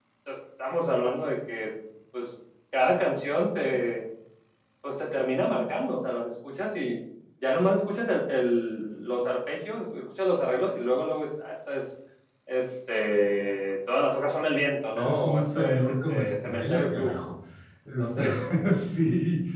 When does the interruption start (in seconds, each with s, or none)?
15.0 s